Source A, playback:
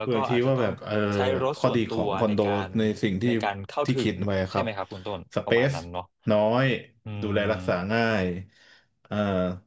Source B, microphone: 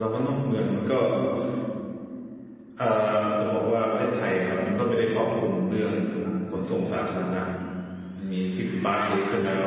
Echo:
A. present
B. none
B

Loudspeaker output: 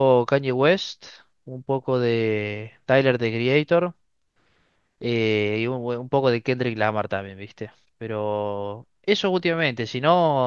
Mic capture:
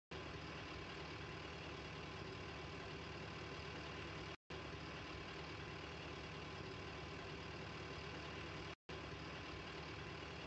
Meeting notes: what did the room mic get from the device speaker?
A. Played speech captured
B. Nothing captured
B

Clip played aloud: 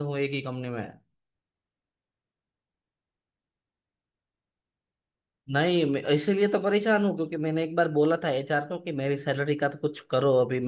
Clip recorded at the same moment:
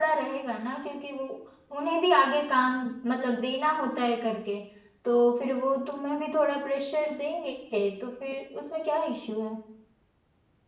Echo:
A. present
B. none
B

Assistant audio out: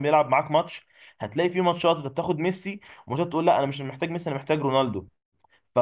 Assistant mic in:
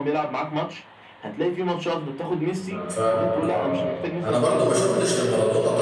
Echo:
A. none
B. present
B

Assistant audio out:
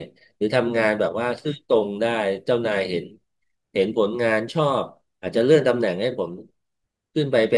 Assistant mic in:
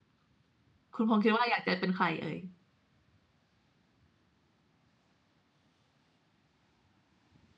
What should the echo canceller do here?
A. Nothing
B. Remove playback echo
A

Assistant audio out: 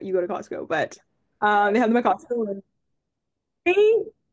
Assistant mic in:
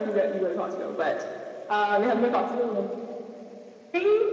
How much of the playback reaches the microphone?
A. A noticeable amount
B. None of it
A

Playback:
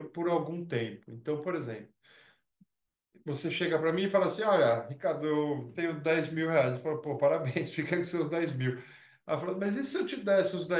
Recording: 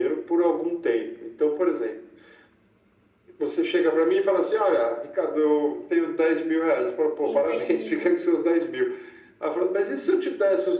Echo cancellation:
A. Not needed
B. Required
B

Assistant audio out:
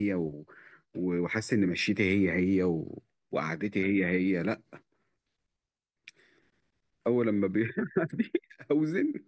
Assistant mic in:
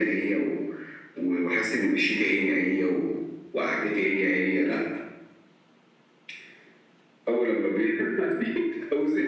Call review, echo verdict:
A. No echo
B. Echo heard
B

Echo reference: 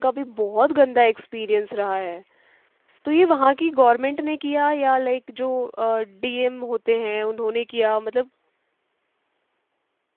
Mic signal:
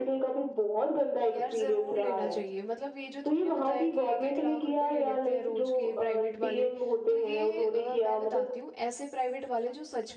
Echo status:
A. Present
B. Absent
A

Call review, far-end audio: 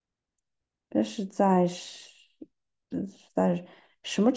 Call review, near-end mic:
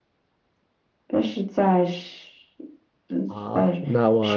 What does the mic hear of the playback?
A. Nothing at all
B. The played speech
B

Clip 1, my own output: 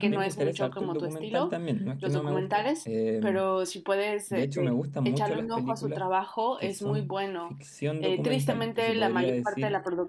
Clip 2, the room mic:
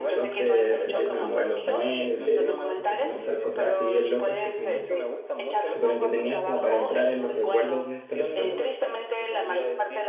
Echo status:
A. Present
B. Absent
A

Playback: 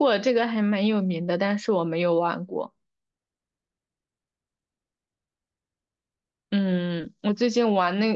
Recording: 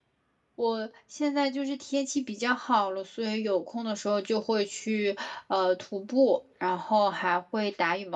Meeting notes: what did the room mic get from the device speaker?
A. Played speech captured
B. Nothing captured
B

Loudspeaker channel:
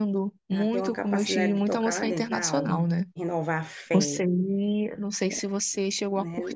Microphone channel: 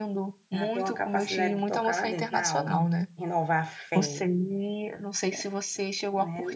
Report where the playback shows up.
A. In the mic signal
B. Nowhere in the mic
A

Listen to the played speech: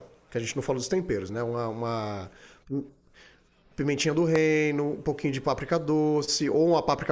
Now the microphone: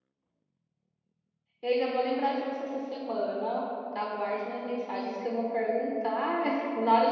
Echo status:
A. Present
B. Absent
B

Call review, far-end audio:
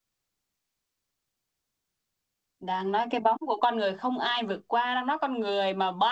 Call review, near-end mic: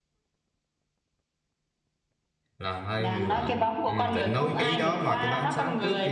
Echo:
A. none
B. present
B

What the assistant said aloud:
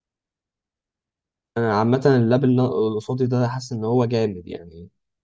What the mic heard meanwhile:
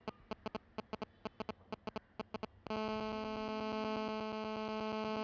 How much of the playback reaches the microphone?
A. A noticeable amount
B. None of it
B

